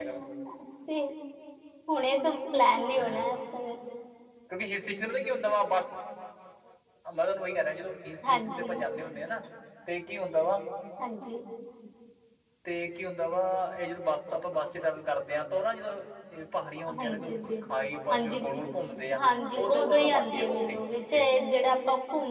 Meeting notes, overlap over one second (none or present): present